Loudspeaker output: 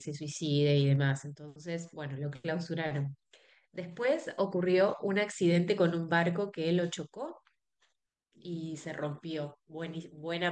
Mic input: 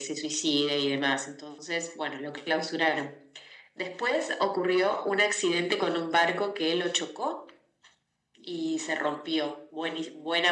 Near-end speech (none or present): none